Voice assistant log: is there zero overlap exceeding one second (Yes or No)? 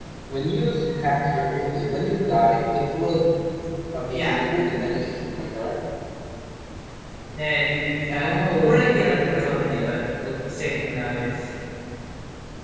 No